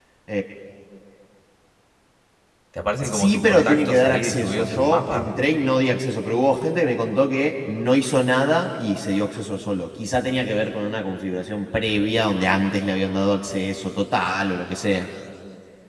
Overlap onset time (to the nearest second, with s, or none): 3 s